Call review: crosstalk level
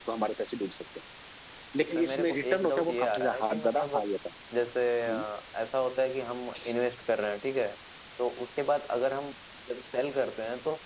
present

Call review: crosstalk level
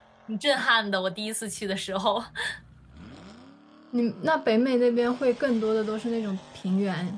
none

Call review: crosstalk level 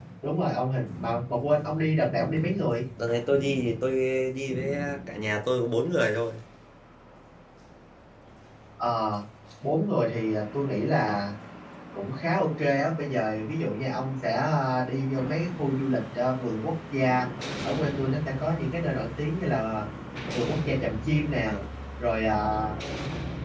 none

